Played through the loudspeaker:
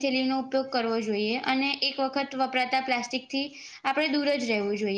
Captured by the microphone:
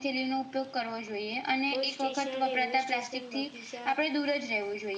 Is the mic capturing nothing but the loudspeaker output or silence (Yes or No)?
No